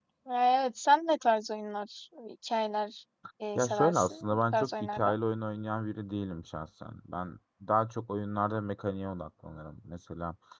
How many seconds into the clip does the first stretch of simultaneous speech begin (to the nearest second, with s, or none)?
4 s